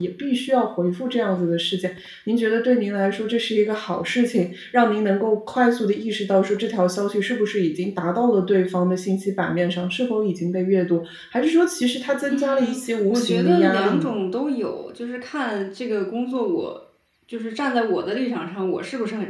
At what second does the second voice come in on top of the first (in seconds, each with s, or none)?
12.2 s